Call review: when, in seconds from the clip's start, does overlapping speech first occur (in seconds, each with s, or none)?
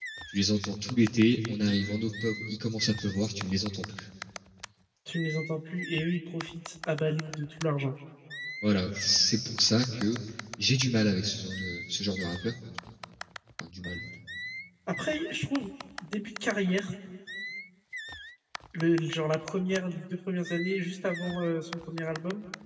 none